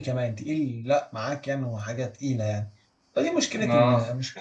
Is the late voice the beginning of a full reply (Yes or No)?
No